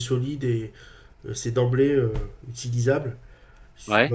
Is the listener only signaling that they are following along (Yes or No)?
Yes